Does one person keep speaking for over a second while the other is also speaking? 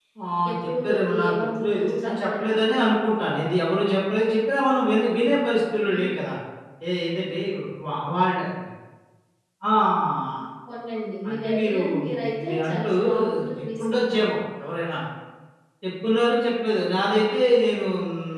Yes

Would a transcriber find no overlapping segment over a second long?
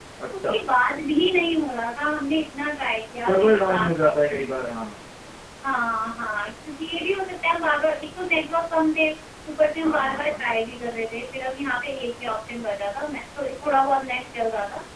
No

